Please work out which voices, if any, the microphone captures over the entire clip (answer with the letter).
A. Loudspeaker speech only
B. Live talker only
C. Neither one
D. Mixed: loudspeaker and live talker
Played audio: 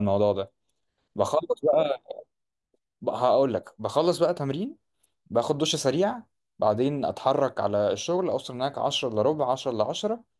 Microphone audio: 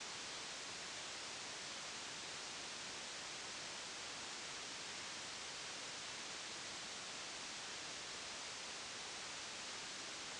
C